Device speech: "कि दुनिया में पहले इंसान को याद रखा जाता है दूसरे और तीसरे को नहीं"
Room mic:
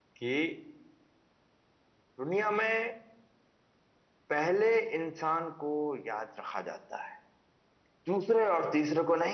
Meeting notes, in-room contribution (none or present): none